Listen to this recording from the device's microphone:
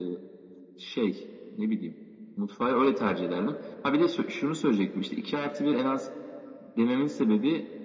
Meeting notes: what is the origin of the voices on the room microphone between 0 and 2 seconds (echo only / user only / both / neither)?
echo only